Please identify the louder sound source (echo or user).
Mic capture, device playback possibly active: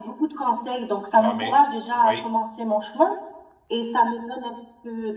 echo